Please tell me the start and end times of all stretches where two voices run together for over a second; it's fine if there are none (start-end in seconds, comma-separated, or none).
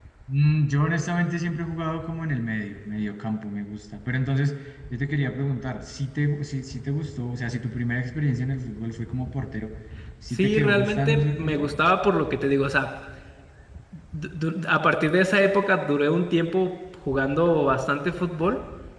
10.3-11.7